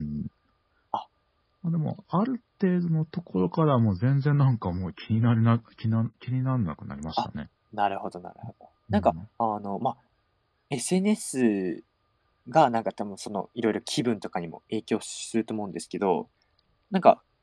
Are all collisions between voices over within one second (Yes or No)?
Yes